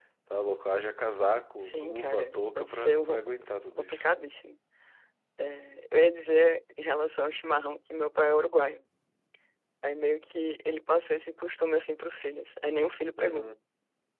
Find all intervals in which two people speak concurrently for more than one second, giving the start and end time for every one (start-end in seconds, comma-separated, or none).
1.6-3.2